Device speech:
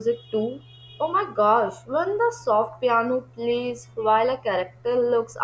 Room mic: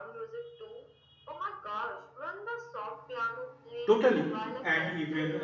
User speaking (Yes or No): Yes